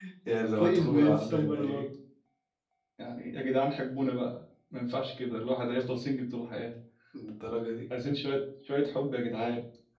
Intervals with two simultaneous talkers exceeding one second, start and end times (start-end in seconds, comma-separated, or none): 0.6-1.9